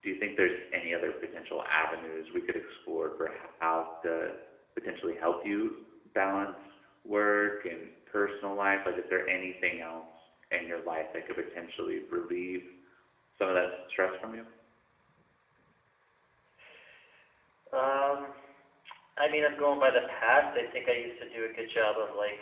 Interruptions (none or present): none